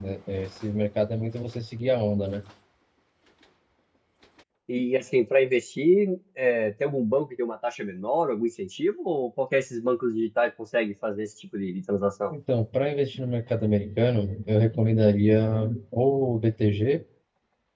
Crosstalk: none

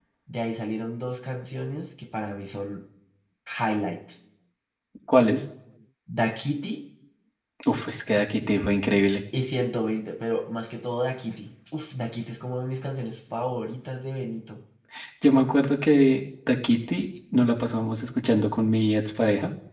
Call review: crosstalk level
none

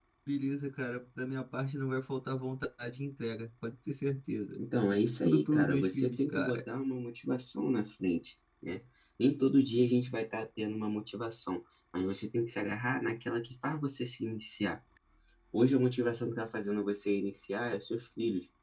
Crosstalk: present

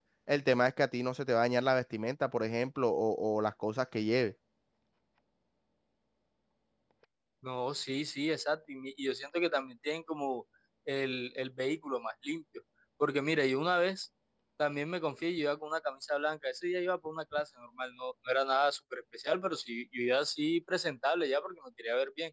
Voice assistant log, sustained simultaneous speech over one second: none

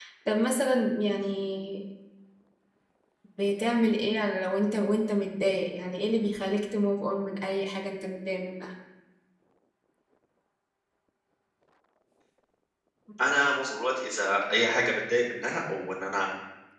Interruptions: none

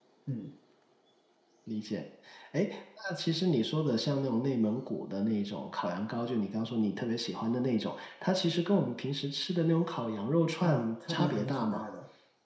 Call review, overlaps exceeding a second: present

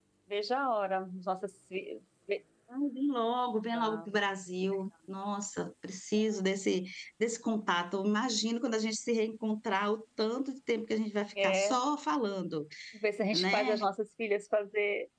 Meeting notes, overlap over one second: none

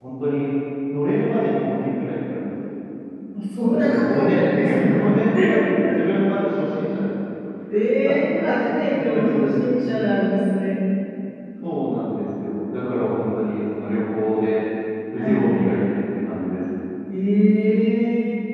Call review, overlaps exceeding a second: present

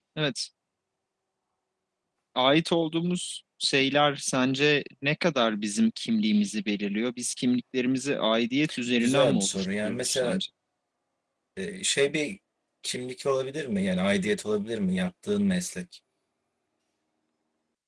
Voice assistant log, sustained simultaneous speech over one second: present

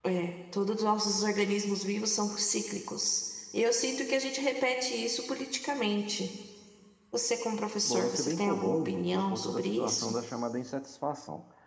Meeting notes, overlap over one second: present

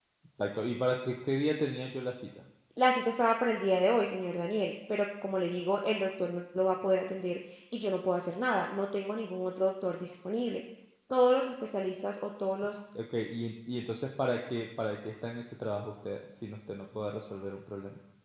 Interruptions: none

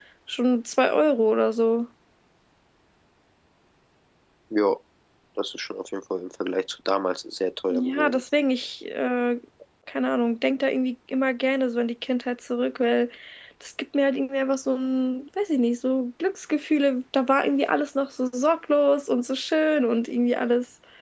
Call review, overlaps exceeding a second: none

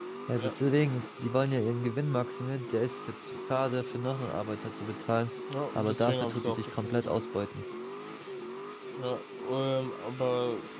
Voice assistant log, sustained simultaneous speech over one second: present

